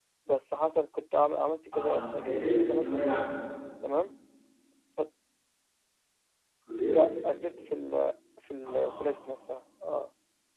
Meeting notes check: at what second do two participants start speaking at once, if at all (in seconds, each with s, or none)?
1.8 s